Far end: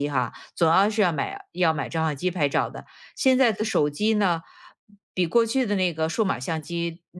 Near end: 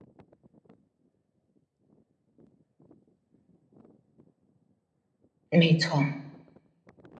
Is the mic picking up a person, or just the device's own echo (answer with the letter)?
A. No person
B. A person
B